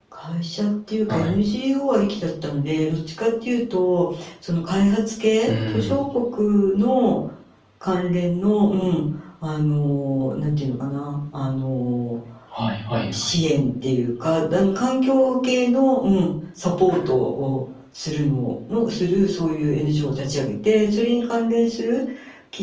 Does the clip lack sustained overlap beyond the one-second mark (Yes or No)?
Yes